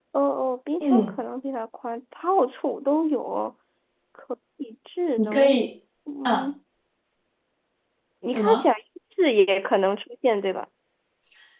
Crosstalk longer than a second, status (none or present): none